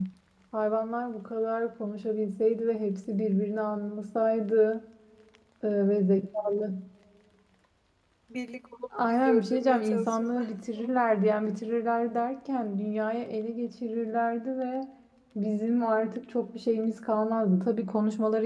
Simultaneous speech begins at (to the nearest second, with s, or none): 9 s